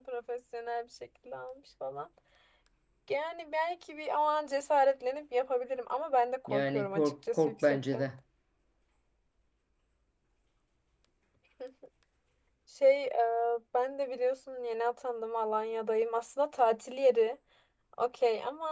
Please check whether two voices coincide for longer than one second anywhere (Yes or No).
Yes